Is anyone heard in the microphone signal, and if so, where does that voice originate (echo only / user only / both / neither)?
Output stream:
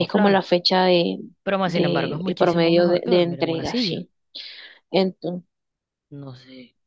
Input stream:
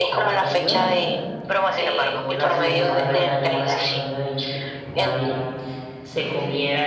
both